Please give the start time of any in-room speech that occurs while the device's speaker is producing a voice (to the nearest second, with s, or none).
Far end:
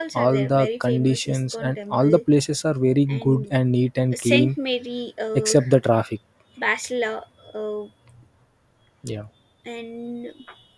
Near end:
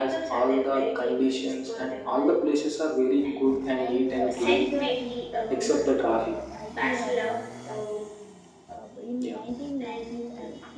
4 s